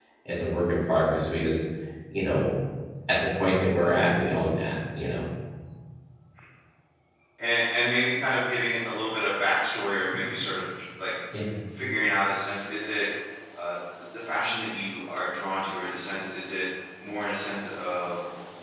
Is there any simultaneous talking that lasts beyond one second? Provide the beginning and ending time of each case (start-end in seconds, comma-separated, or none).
none